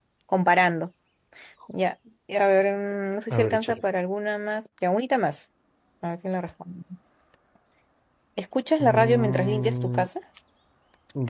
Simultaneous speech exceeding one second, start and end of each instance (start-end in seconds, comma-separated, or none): 8.8-10.1